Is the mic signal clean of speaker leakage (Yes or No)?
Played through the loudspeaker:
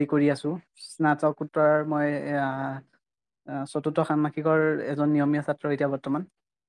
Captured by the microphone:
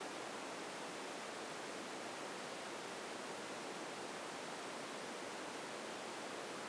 Yes